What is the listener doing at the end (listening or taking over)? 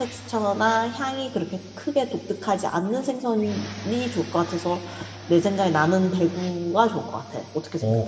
taking over